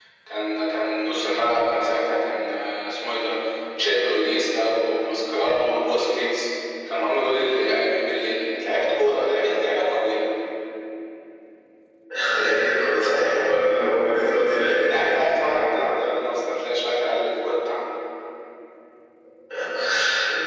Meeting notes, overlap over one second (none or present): none